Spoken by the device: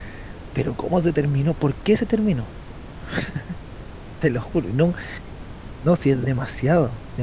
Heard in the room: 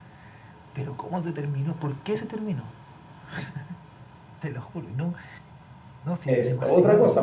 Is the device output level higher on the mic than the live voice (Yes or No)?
No